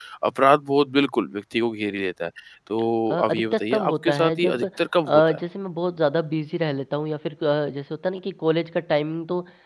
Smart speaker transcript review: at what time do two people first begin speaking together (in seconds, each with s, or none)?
3.1 s